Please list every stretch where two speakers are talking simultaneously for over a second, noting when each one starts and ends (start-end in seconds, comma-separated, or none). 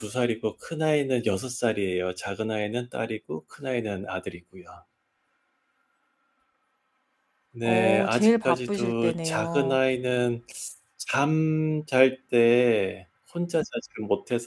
7.6-9.8